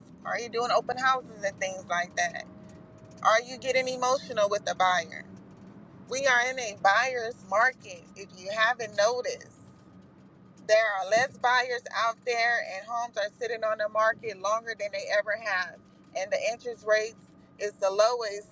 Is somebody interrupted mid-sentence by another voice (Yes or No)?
No